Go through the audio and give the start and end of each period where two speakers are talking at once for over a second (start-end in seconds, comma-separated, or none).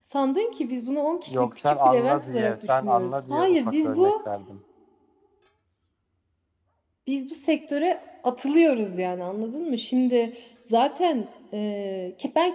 1.3-4.1